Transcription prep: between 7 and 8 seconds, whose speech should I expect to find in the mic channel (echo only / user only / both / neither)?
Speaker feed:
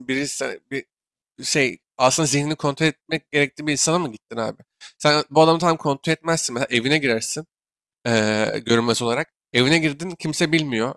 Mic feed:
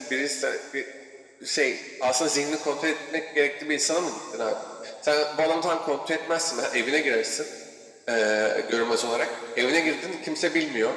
echo only